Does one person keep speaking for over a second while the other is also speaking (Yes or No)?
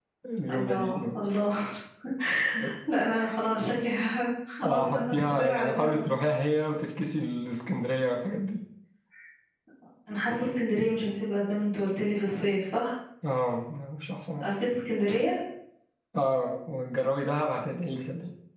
Yes